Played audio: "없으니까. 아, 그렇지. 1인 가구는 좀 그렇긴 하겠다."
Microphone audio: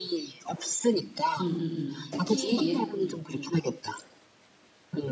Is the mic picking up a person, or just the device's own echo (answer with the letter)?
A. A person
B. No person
A